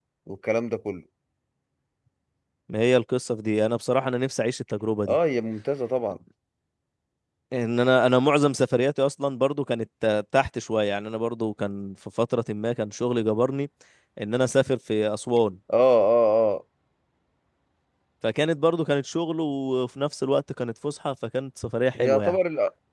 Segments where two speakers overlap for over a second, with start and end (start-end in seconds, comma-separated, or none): none